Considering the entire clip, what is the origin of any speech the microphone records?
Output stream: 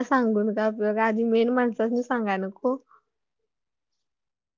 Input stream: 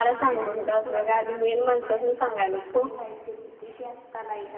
both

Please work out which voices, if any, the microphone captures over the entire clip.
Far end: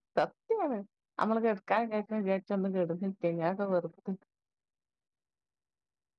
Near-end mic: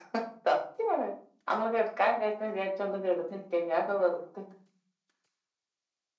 echo only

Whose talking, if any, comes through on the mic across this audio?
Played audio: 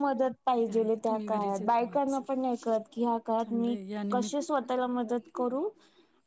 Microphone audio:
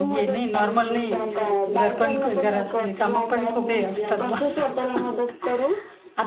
both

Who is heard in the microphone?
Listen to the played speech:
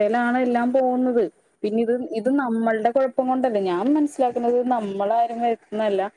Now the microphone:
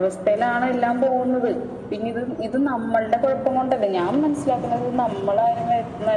echo only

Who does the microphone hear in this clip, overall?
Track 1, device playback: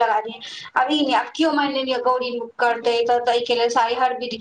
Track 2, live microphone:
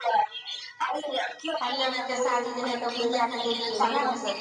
both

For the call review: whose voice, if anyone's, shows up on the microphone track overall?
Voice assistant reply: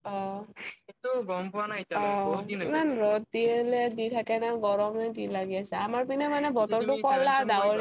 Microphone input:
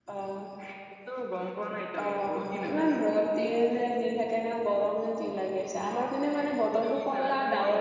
echo only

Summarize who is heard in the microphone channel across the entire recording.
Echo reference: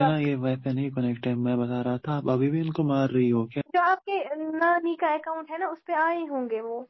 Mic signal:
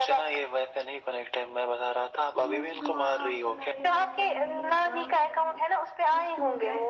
both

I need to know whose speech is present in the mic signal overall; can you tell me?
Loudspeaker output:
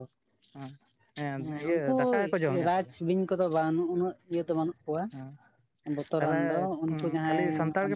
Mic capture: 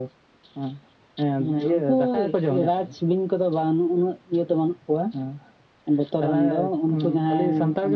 echo only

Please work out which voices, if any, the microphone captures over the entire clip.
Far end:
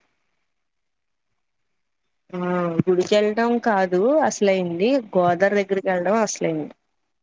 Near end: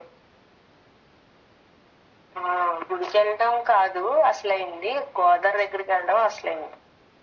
echo only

